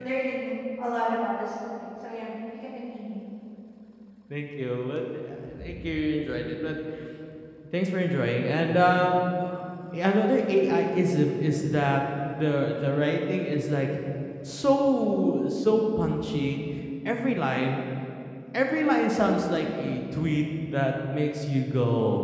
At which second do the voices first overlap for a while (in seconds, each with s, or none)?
none